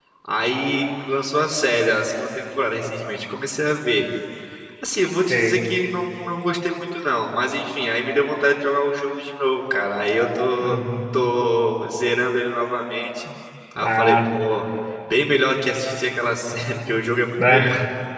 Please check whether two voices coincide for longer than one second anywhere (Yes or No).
No